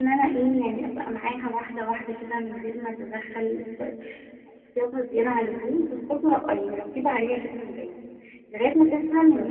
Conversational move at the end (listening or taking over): listening